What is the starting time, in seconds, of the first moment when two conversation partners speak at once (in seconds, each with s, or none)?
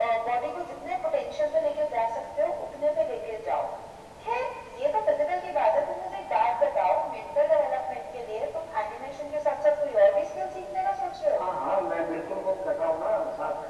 none